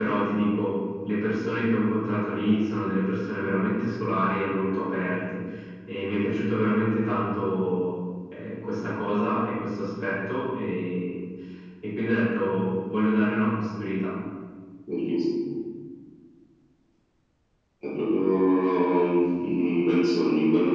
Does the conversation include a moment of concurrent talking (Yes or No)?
No